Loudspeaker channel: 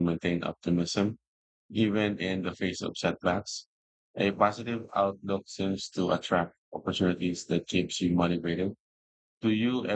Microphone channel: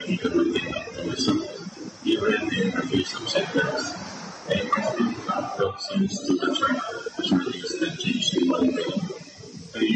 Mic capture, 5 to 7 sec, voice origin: echo only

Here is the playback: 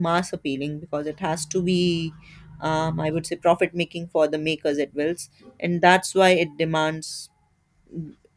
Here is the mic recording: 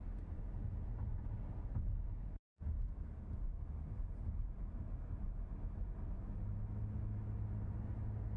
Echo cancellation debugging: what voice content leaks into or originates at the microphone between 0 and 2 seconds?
neither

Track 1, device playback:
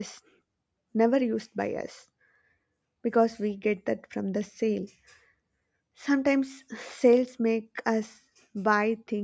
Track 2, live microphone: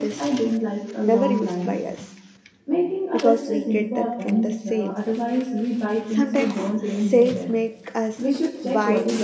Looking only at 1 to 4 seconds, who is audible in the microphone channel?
both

